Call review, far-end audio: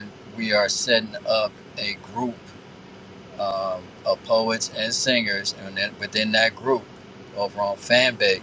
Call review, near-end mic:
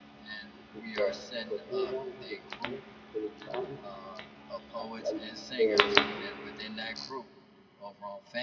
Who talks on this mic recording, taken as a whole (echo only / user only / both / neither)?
both